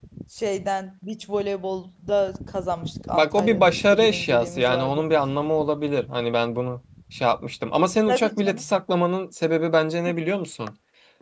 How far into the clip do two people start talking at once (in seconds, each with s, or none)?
3.1 s